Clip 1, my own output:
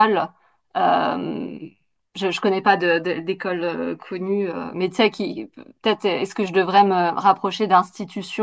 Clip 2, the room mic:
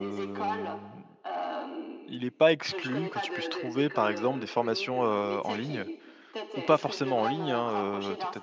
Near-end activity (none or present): present